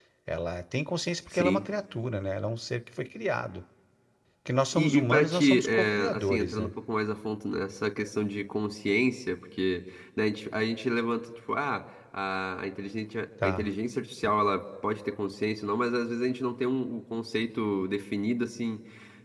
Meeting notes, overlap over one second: present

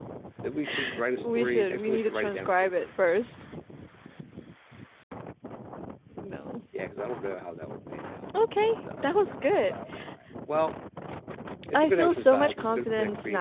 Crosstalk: present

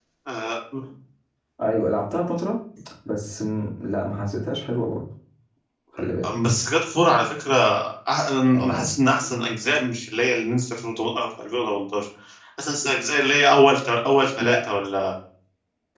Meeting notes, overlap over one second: none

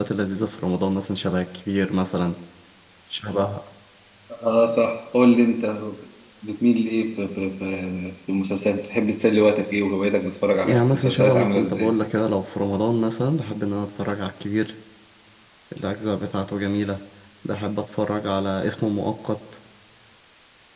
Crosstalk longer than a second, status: present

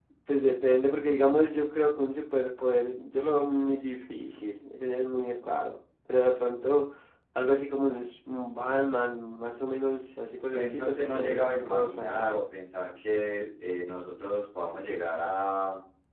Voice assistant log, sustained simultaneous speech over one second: present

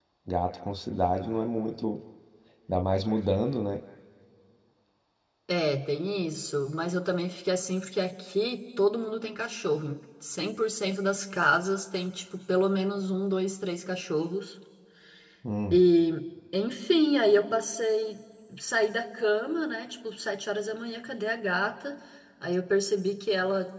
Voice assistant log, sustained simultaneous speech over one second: none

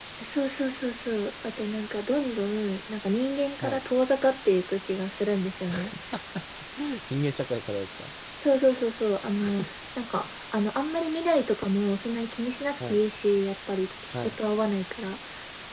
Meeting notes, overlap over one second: none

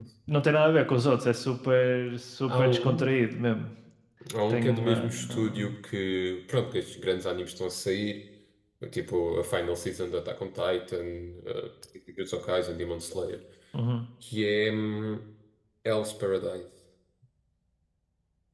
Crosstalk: present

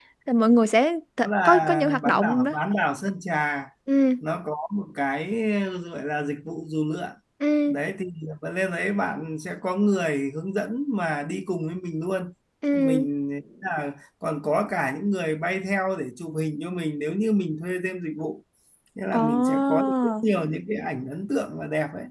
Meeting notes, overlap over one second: present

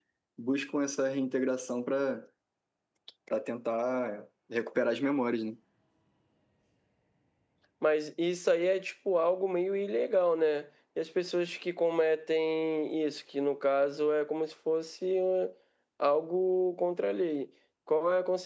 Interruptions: none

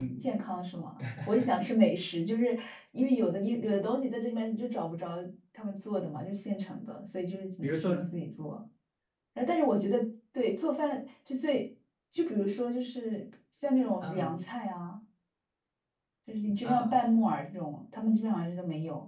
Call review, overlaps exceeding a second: none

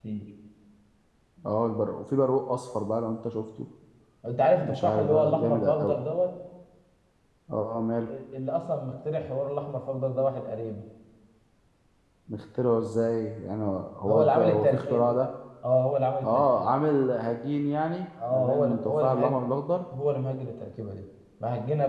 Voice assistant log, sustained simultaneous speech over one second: present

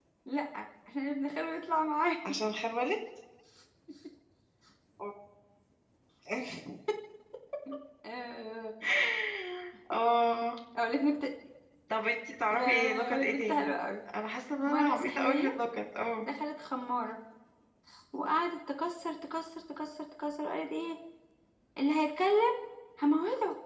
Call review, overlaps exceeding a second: present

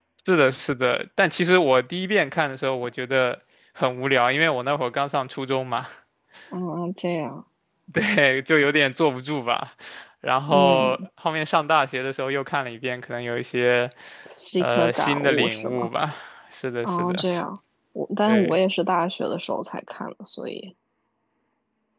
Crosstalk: present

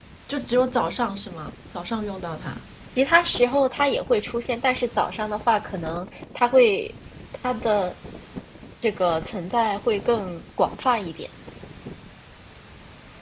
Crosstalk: none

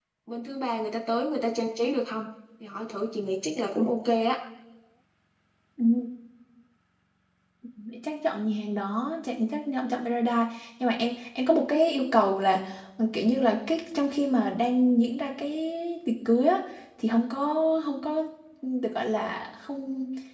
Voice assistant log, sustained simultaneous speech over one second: none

